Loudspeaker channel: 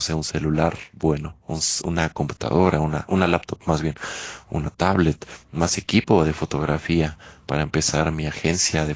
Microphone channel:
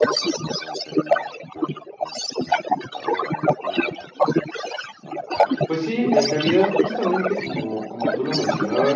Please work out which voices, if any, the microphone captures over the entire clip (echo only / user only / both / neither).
both